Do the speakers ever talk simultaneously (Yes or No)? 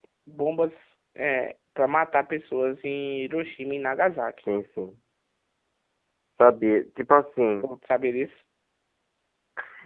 No